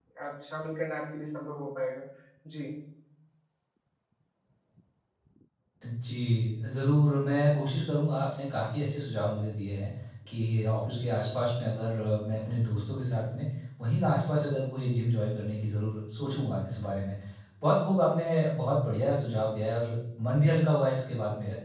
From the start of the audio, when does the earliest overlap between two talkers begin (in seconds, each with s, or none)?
none